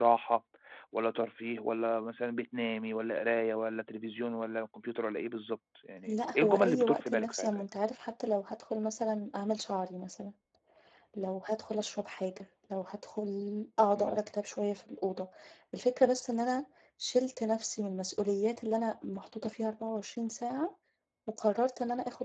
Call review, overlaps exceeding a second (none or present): present